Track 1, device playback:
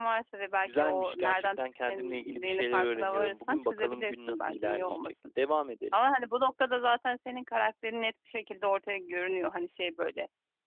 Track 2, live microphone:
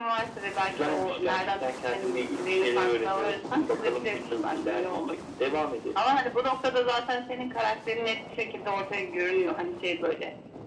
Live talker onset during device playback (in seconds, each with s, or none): none